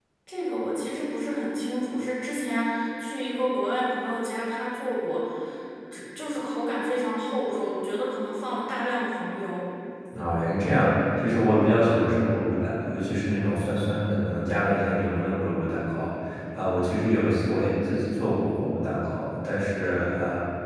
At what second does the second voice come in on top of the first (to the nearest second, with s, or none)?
none